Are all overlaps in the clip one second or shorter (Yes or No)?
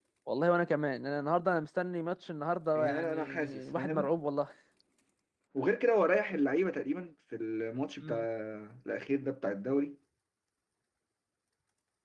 No